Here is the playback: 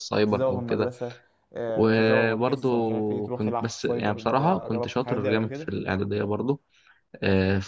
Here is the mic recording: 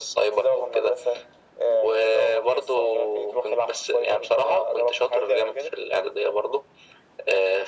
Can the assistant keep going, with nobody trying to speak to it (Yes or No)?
Yes